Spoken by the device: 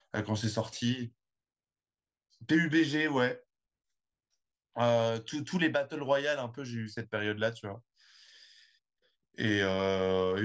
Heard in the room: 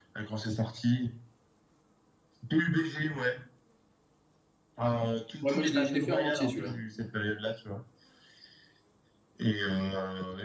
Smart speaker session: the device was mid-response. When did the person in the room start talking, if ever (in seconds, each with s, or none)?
5.4 s